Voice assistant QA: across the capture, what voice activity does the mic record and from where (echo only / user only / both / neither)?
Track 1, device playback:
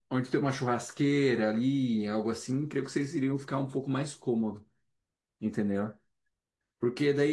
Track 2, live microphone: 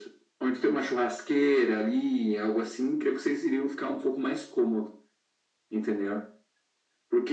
echo only